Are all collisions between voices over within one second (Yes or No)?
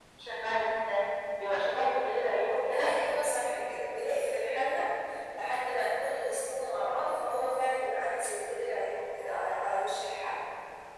Yes